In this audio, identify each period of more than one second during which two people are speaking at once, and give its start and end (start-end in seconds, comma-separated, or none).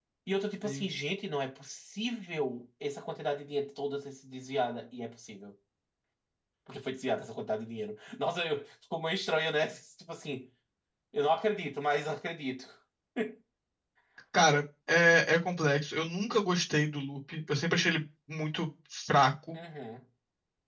none